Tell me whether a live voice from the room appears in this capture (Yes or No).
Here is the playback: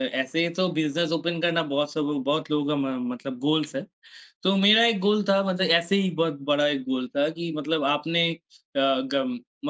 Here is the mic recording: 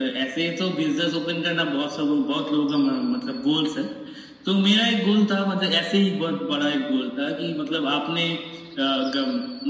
No